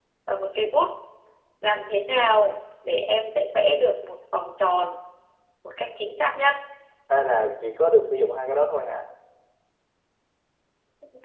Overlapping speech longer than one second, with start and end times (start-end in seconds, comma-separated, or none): none